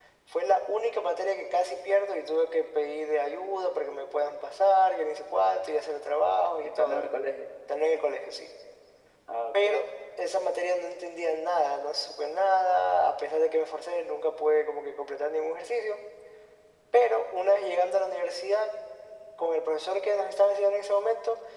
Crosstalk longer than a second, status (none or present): none